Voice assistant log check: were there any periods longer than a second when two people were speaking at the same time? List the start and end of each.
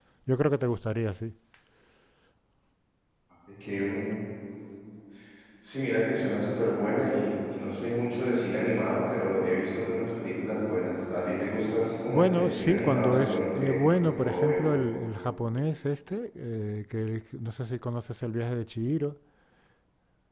12.1-14.6

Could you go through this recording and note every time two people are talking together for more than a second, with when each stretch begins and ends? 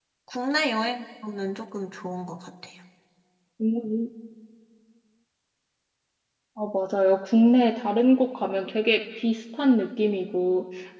none

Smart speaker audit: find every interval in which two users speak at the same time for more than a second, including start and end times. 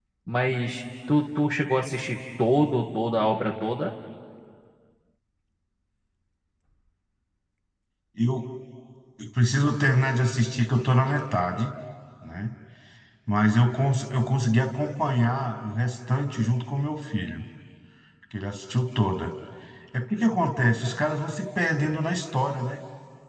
none

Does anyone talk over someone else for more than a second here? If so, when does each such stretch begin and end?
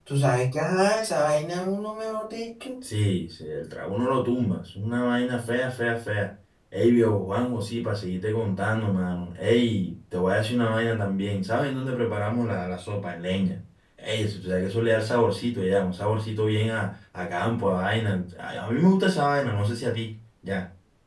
none

